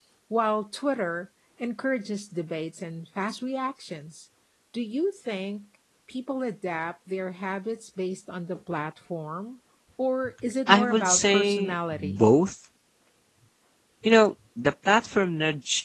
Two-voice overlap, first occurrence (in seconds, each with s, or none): 10.7 s